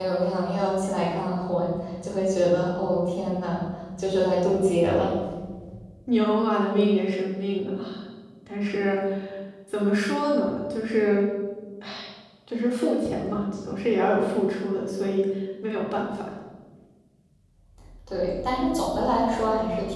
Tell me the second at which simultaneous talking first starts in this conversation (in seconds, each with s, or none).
none